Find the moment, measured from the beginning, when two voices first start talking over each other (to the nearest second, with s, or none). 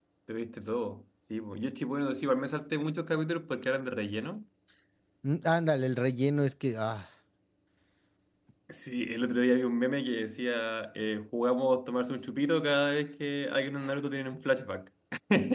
none